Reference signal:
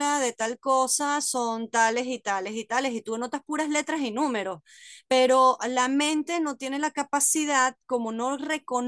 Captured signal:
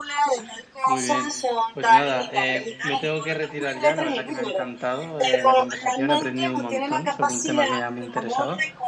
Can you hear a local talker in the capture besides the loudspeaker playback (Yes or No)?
Yes